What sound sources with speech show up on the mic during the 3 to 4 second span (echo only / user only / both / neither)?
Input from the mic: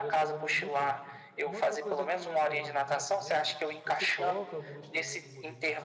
both